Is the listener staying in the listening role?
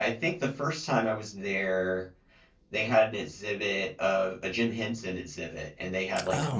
Yes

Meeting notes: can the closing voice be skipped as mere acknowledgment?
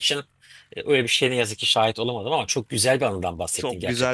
No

